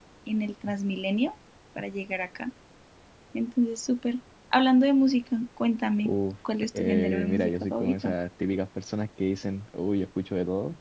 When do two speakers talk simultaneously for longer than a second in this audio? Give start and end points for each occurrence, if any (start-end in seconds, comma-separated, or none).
6.8-8.1